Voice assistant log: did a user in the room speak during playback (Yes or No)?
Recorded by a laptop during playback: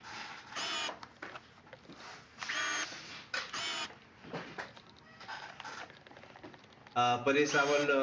Yes